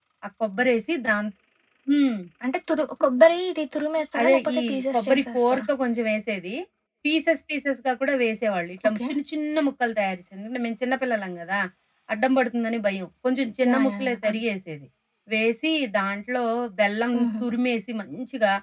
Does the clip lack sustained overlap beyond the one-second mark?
No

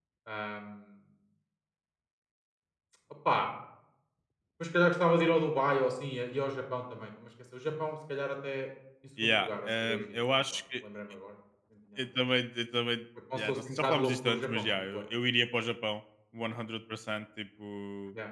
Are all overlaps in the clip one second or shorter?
No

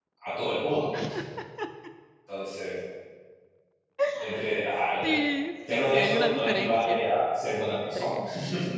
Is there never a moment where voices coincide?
No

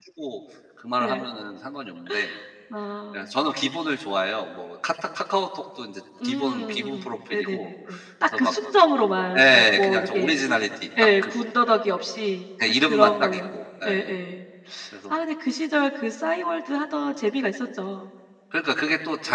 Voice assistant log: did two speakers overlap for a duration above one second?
Yes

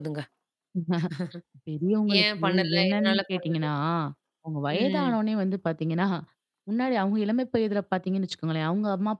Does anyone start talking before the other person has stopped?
Yes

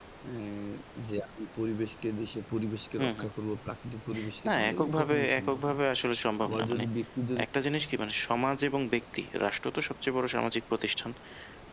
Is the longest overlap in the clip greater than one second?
Yes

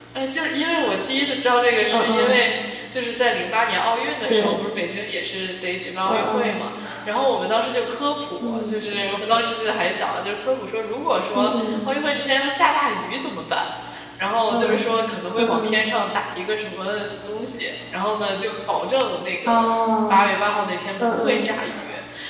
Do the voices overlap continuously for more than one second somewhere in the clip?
No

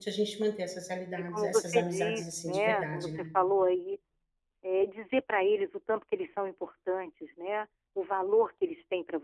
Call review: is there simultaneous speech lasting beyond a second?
Yes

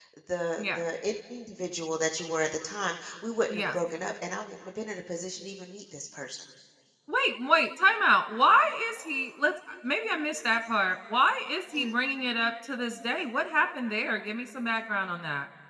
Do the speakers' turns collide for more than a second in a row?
No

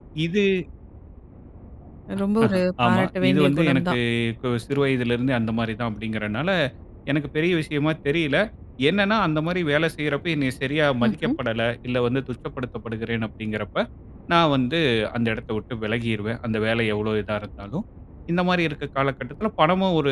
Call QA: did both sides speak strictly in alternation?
No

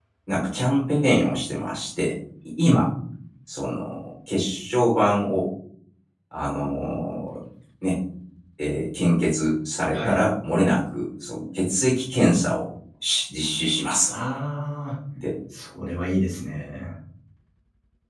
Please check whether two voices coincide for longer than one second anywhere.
No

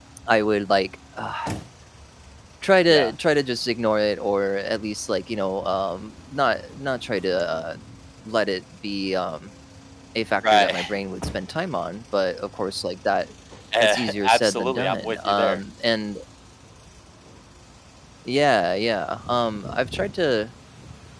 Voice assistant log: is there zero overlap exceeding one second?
No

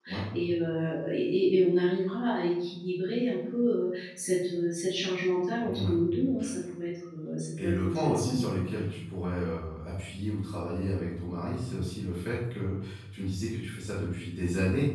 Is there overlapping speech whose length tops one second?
Yes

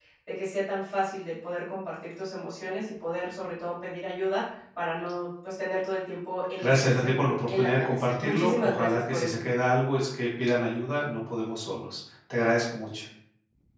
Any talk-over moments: Yes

